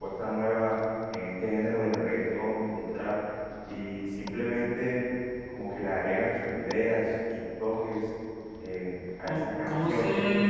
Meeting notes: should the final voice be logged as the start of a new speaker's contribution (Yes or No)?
Yes